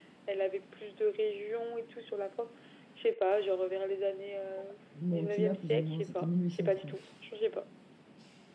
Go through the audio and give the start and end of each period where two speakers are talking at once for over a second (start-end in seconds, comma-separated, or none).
5.1-7.0